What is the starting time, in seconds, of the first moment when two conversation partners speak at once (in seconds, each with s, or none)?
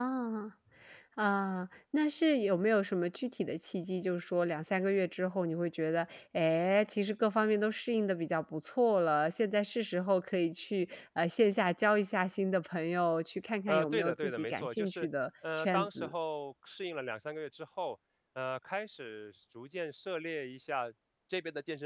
13.7 s